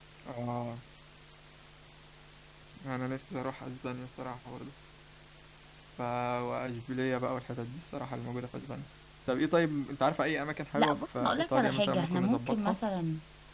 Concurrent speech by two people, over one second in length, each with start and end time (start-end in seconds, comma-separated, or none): 10.8-12.8